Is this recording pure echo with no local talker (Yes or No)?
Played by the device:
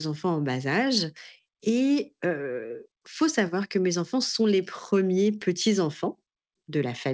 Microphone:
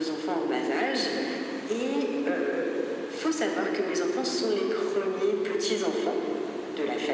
Yes